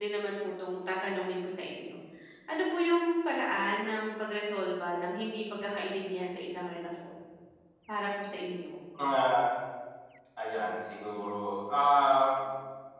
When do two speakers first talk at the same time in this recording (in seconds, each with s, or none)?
none